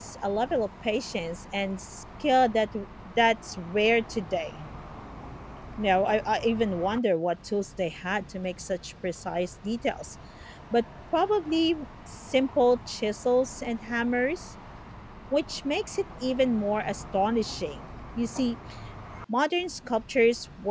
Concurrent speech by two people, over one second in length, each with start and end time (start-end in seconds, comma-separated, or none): none